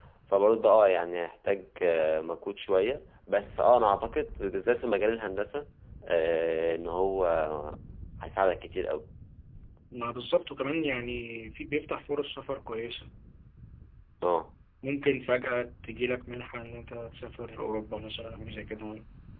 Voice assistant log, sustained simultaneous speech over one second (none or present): none